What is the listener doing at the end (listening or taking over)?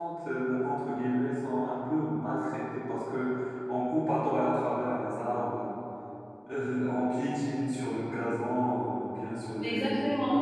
taking over